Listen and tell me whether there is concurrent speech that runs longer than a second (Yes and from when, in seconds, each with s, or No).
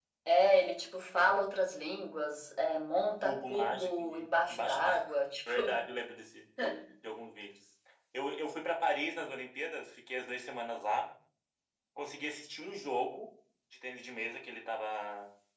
Yes, from 3.2 s